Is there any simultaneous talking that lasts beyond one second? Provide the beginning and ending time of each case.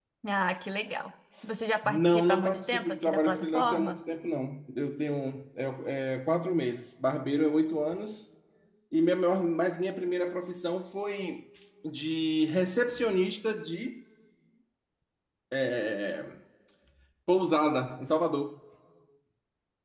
1.8-4.0

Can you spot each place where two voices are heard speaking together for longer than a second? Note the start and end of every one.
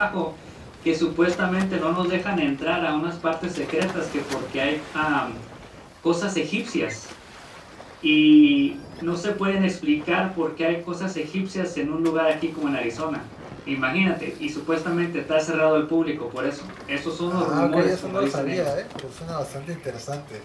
17.2-18.7

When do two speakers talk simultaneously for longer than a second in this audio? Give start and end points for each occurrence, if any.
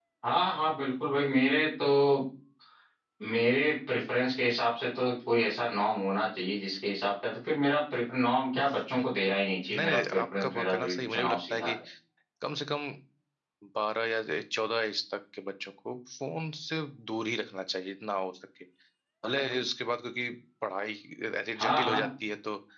9.8-11.7

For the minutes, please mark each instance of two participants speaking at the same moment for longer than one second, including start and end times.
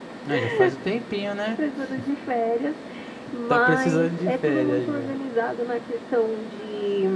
3.5-5.1

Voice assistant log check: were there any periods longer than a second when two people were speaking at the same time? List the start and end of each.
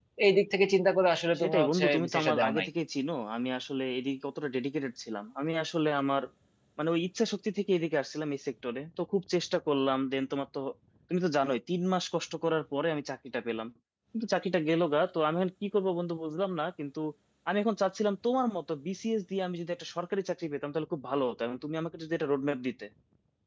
1.4-2.7

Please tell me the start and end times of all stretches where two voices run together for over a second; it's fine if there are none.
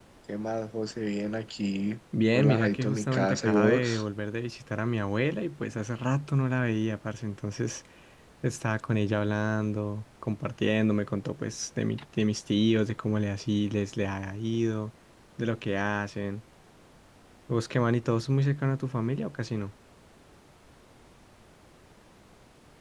2.3-4.0

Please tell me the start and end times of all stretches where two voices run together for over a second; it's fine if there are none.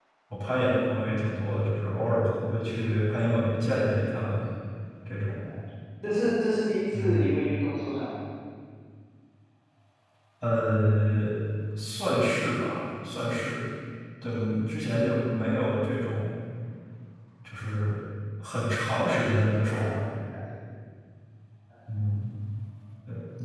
none

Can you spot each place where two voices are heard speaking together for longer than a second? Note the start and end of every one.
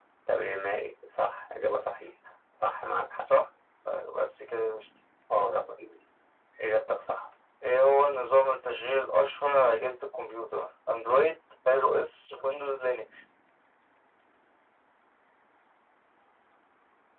none

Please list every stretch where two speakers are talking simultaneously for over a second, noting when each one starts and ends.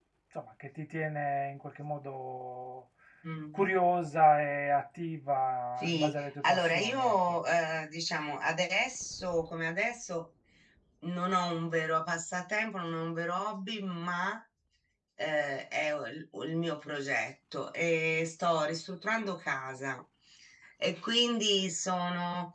5.8-7.3

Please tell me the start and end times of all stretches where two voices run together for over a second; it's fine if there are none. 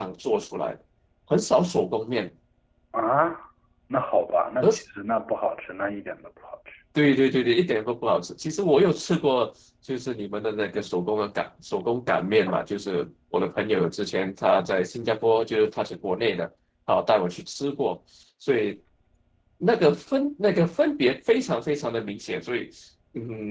none

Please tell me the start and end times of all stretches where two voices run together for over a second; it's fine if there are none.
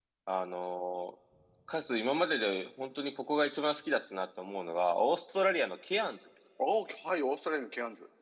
none

